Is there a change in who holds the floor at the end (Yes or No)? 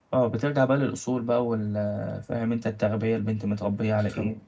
Yes